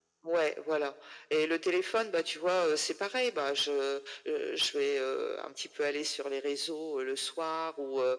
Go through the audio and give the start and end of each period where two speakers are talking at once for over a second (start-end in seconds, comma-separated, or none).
none